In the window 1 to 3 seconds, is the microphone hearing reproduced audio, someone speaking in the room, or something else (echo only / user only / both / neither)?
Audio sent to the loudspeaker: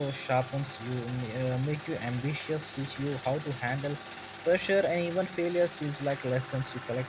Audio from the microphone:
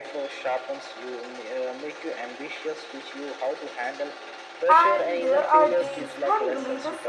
echo only